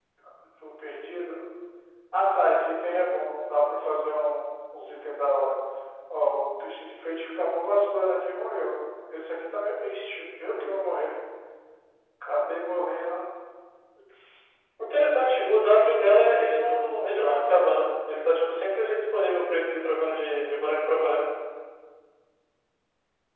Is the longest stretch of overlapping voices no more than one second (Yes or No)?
No